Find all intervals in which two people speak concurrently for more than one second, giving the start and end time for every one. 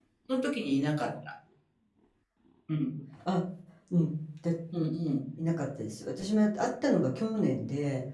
none

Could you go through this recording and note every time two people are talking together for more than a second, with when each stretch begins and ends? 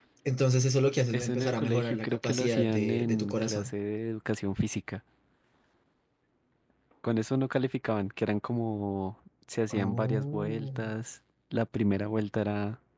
1.1-3.7, 9.7-10.9

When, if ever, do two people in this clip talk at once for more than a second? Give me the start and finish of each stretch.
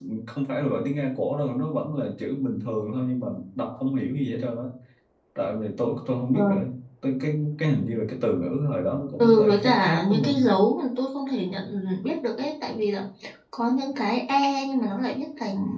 9.1-10.4

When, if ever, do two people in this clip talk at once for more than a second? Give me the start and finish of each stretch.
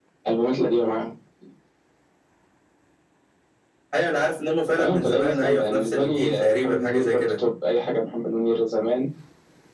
4.8-7.3

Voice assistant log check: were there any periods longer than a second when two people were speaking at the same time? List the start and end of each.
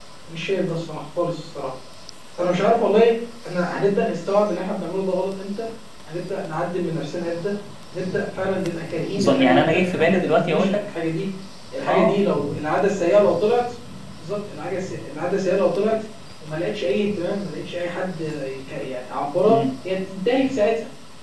9.2-10.9

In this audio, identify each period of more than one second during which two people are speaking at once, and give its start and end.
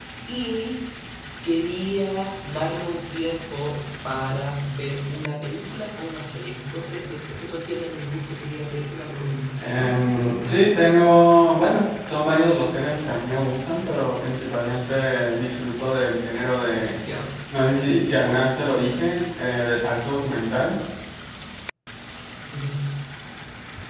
9.6-10.8

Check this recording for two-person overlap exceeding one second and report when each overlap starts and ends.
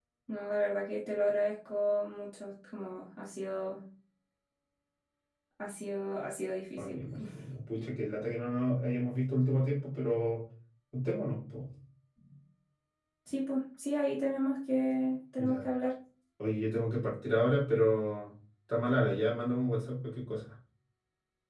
none

